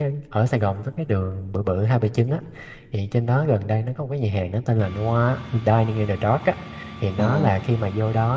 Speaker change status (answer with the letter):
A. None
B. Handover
A